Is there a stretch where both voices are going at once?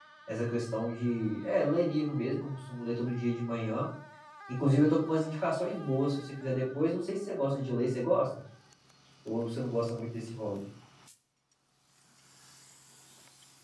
No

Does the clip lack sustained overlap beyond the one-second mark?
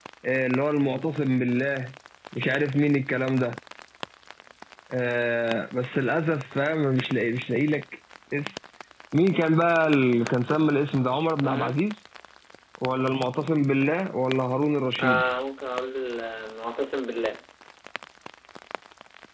Yes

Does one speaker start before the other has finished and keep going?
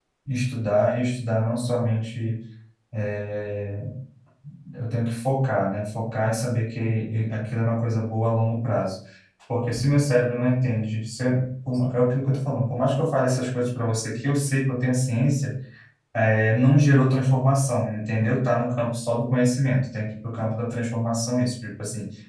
No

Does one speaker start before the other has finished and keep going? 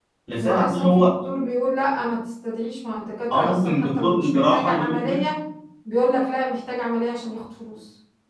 Yes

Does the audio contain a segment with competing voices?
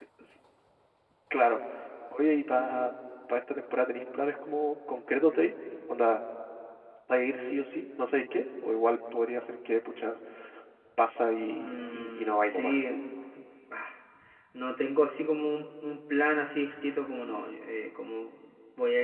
Yes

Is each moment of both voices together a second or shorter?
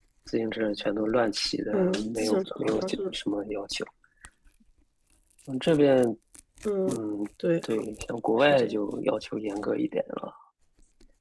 No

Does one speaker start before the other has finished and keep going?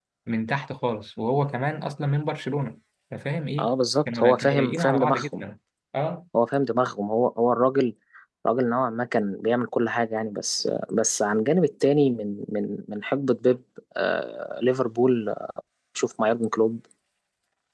Yes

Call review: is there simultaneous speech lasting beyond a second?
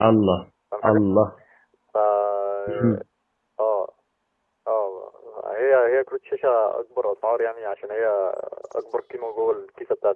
No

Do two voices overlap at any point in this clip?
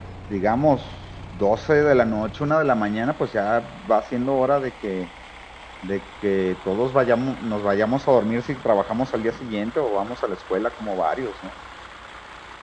No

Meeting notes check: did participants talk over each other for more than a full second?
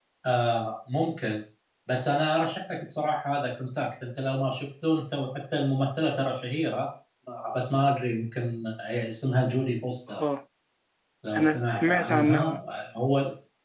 Yes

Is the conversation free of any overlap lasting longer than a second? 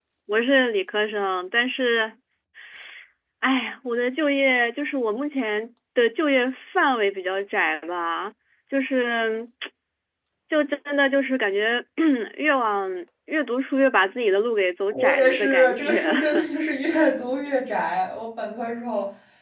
No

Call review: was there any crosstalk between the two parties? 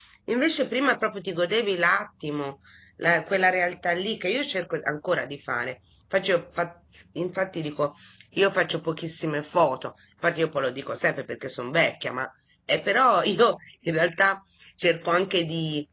No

